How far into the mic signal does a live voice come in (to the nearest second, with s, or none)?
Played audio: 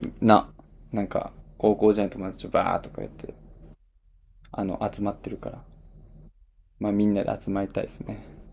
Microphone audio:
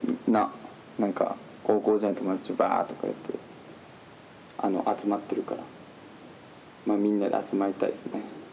none